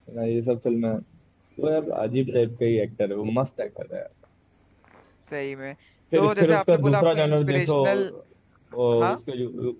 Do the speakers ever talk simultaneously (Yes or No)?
Yes